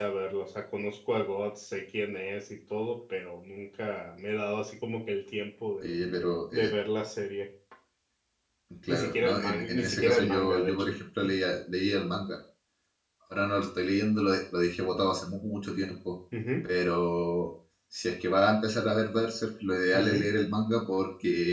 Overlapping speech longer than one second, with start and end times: 8.9-10.9

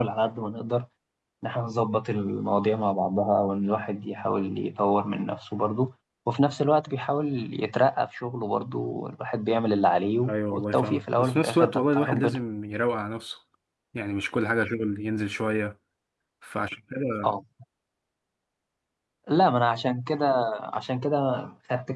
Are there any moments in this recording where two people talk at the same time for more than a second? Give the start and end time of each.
10.2-12.4

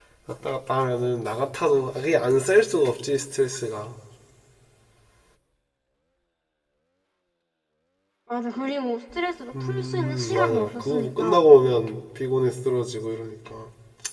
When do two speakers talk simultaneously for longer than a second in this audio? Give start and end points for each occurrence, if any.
9.6-11.4

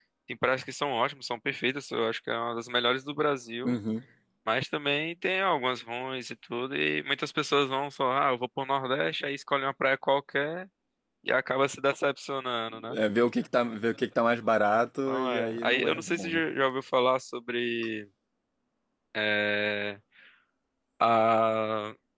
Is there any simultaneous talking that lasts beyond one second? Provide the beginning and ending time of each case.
15.1-16.4

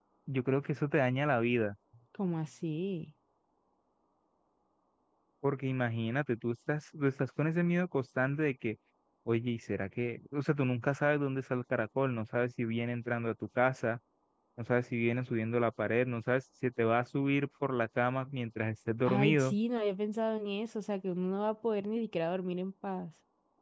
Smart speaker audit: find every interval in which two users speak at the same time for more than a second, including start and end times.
none

